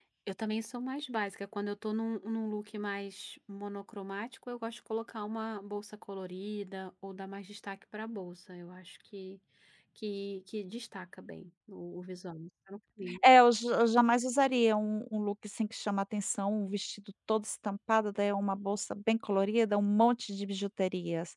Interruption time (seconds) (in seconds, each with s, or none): none